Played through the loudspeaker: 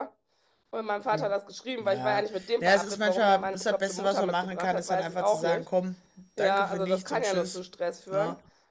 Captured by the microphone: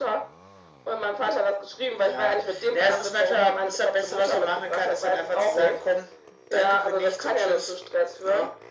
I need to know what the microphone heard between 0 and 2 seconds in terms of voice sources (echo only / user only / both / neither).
echo only